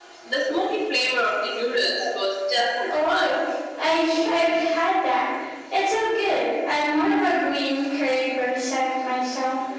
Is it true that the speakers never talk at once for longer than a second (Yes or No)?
Yes